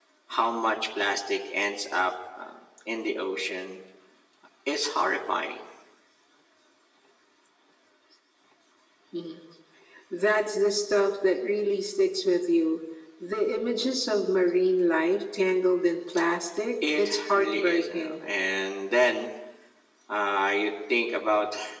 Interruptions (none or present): present